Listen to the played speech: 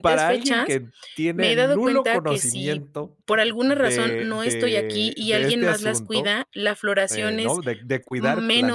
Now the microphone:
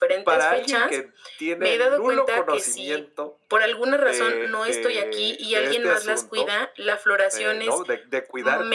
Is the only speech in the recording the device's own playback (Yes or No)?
Yes